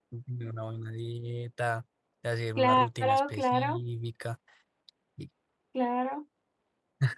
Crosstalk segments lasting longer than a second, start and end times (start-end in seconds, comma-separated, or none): 2.6-3.8